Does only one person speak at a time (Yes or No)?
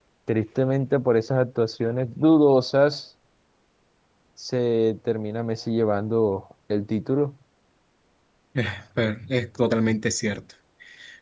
Yes